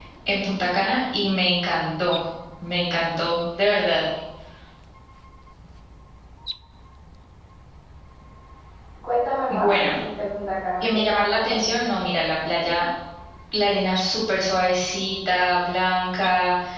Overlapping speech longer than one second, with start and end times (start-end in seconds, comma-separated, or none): 10.8-12.0